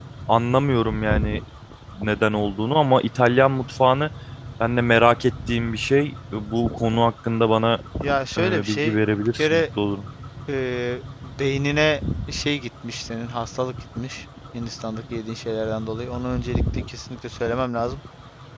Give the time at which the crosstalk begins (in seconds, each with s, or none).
8.4 s